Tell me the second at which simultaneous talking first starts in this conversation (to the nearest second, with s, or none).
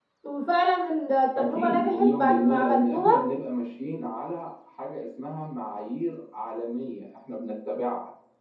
1 s